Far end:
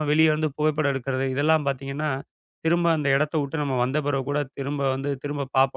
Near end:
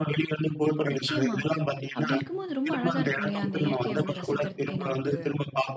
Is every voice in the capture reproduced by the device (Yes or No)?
No